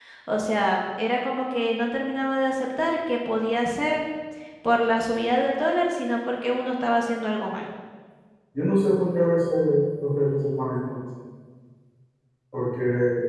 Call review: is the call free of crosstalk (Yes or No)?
Yes